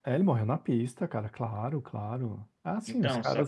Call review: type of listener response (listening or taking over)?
taking over